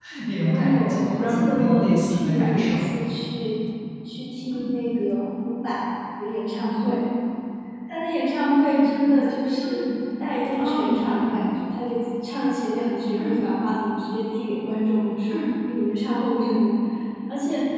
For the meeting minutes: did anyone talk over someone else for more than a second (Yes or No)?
Yes